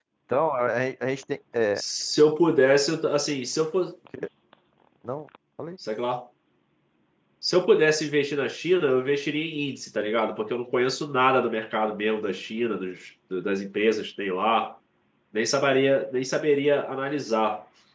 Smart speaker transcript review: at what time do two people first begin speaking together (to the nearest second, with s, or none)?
none